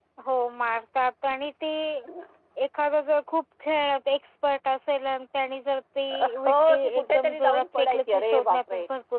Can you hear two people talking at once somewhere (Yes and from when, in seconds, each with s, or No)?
Yes, from 6.1 s